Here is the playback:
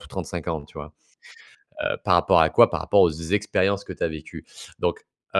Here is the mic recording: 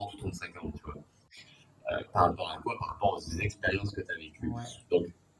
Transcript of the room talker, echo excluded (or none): Ouais.